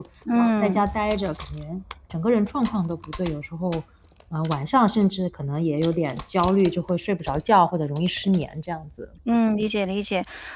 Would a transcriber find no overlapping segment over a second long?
Yes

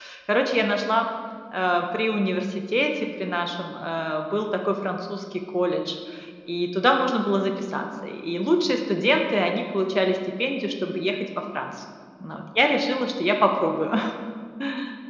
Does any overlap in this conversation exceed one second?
No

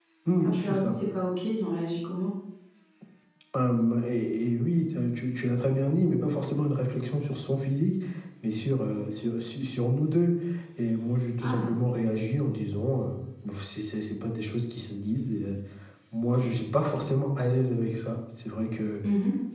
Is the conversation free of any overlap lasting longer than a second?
Yes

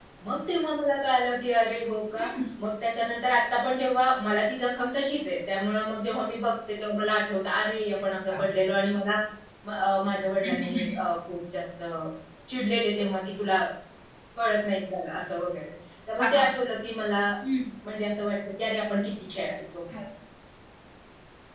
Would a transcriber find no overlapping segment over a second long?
Yes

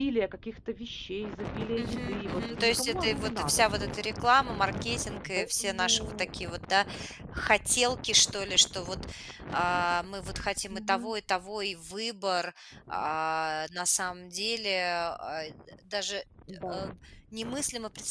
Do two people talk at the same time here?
Yes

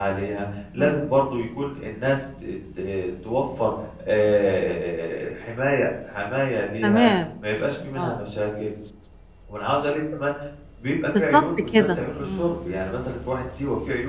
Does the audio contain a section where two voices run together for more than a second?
Yes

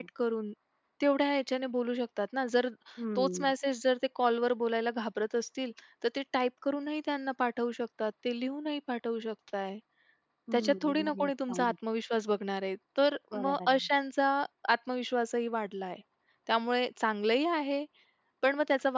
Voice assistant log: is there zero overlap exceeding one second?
No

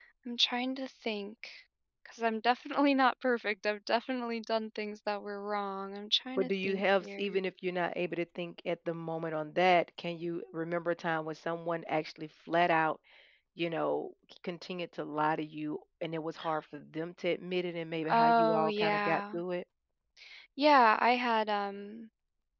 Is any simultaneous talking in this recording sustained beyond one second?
Yes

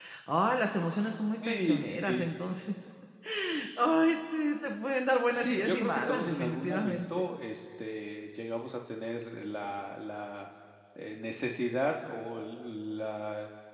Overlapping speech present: Yes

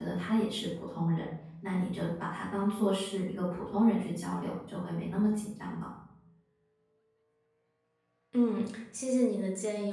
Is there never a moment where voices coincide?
Yes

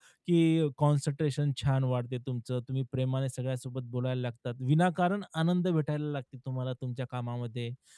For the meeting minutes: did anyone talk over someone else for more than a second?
No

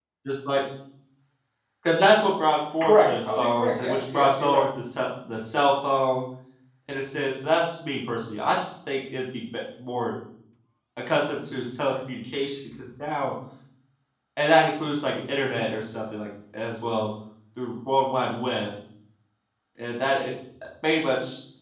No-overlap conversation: No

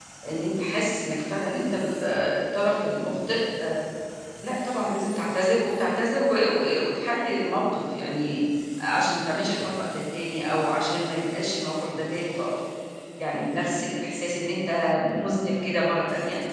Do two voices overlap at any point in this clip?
No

